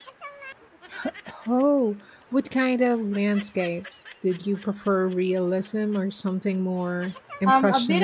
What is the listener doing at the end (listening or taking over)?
taking over